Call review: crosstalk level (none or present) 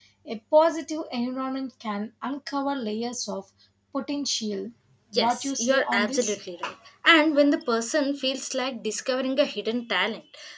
present